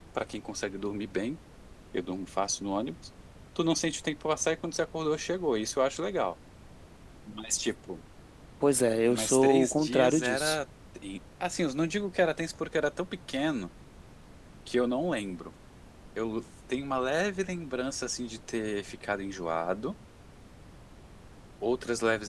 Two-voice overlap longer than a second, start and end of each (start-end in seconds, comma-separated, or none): 9.1-10.6